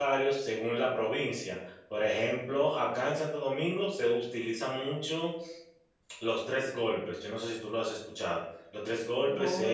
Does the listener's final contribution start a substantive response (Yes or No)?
No